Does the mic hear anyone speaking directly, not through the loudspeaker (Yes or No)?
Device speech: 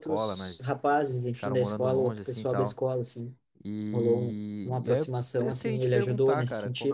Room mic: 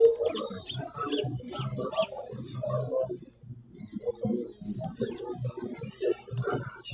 No